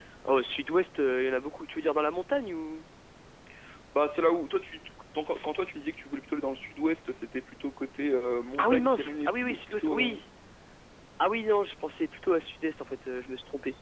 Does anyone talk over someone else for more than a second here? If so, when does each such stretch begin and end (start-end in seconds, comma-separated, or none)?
8.6-10.2